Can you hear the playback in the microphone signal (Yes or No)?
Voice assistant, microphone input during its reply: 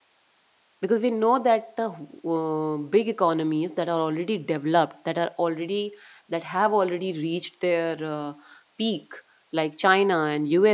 No